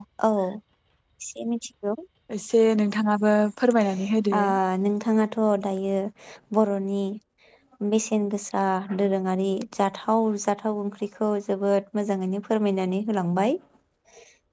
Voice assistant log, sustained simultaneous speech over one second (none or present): none